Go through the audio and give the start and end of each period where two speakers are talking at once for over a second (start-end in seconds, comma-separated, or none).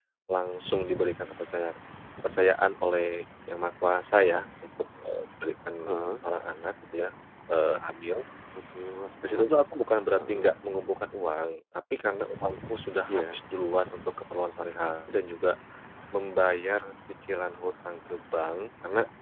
none